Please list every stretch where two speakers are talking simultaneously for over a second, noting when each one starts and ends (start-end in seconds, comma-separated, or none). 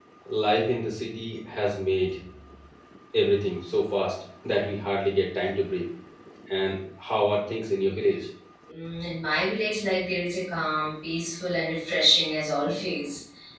none